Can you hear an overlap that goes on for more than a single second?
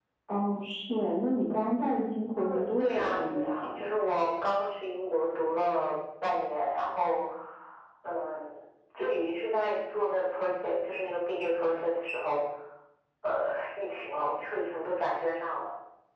Yes, from 2.4 s

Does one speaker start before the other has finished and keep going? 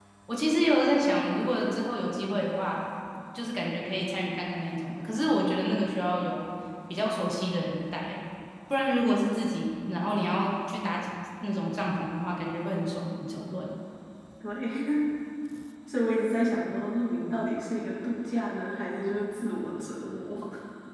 No

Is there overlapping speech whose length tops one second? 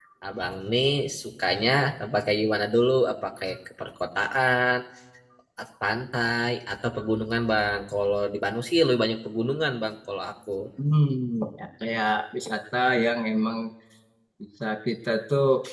No

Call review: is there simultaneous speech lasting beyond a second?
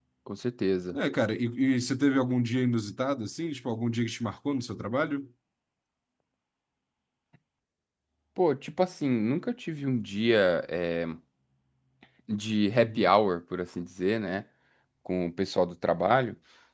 No

